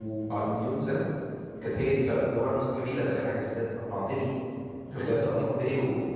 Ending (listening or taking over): listening